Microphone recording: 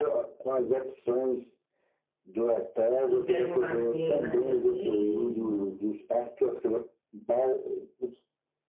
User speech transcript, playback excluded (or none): E pega um barzinho ali na areia mesmo.